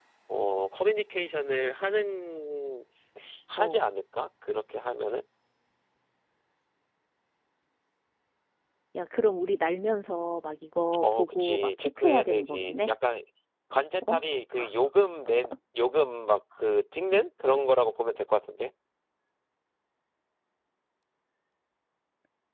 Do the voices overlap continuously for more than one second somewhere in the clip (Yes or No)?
Yes